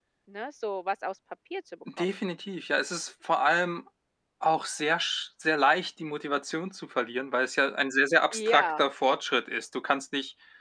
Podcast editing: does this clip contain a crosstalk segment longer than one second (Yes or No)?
No